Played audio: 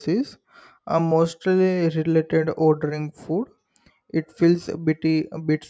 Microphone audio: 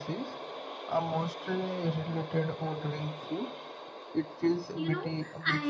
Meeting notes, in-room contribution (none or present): present